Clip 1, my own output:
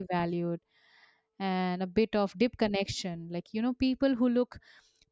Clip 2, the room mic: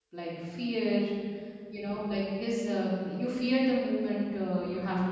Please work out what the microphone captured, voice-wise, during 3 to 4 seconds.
user only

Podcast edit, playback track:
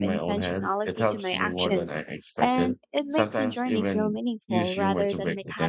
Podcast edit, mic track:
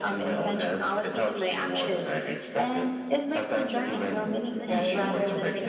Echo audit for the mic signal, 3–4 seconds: both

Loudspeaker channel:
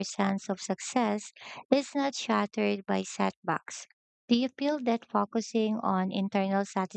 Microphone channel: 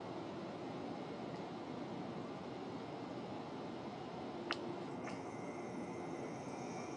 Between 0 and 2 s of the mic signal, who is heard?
neither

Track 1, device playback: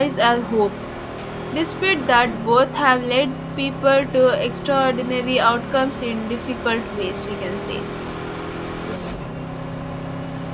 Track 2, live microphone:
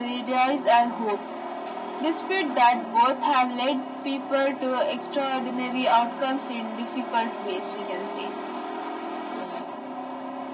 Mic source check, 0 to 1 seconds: echo only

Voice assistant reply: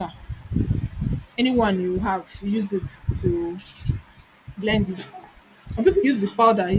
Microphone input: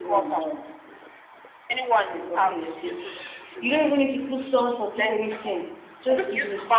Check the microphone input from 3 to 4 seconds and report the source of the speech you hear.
both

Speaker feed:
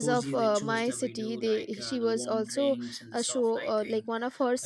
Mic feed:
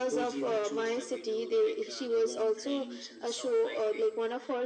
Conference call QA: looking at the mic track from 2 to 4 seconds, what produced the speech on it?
echo only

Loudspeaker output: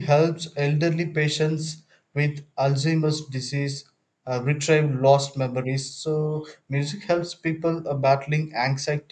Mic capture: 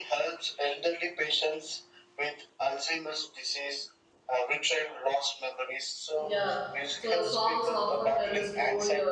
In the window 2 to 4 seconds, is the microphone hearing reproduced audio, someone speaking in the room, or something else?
echo only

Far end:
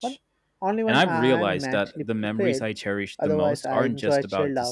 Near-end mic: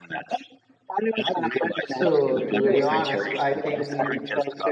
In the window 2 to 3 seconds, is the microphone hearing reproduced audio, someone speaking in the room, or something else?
both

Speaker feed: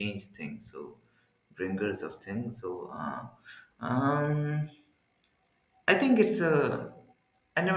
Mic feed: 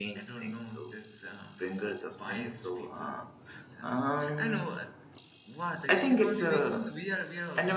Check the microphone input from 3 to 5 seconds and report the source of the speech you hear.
both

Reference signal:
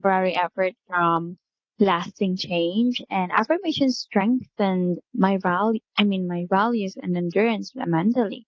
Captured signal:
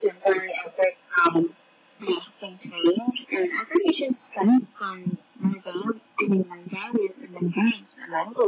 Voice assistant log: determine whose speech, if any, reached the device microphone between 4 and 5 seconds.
echo only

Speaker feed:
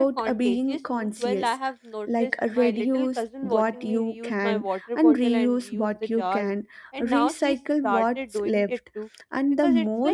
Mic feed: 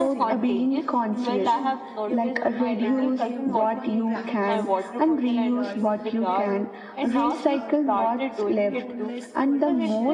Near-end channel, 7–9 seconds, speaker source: both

